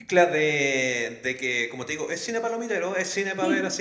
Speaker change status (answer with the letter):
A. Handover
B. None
B